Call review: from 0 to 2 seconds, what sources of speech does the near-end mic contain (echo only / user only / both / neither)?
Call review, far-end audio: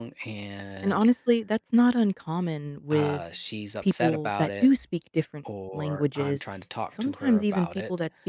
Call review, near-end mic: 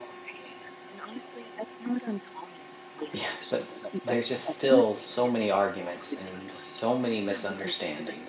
echo only